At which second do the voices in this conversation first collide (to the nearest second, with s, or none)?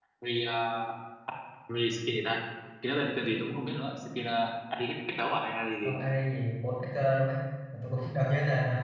none